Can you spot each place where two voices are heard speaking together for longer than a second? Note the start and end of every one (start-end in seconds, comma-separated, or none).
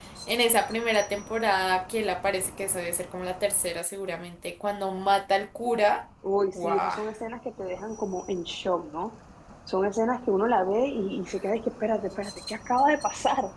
none